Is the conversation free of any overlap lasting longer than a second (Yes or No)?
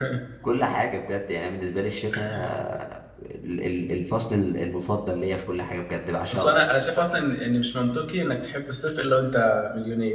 Yes